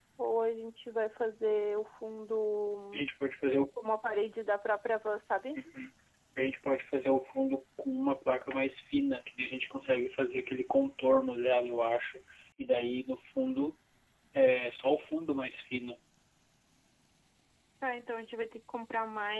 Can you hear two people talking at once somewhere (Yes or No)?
No